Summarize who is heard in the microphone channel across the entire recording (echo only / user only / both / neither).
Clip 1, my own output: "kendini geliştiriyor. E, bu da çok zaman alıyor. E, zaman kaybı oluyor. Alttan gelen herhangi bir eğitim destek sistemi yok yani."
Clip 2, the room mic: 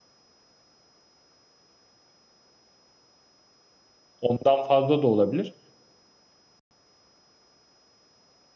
user only